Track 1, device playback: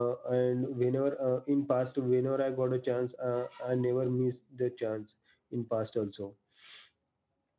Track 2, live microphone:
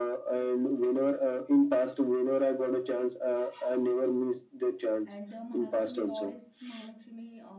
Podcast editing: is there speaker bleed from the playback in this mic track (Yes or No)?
Yes